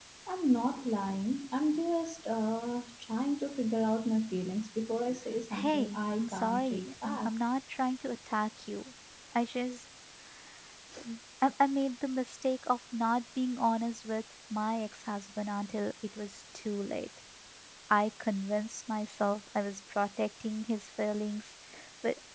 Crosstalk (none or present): present